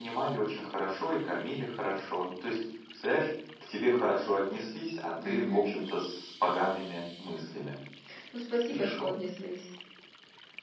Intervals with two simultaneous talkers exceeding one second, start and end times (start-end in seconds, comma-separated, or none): none